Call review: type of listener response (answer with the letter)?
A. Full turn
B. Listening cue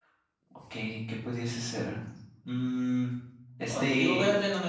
A